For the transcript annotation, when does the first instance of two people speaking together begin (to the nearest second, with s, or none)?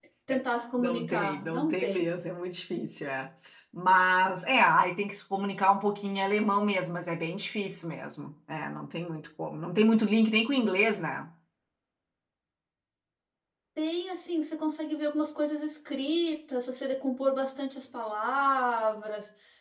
1 s